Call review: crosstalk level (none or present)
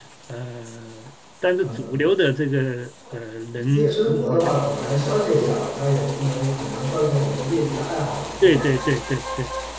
present